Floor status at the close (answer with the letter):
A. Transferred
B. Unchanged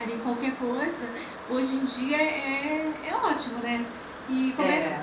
B